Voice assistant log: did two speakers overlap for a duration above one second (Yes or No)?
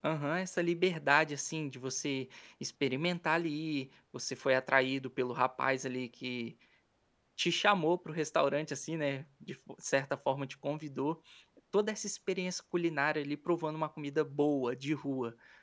No